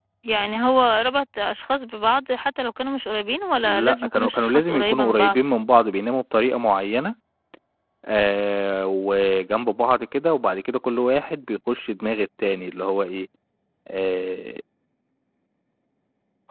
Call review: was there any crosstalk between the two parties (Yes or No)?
Yes